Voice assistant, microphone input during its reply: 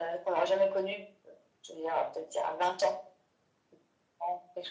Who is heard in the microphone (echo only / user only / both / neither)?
echo only